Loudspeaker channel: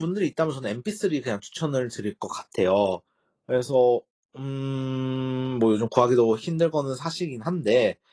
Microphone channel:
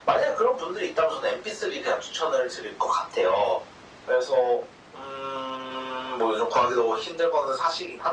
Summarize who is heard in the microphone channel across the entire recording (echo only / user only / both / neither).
echo only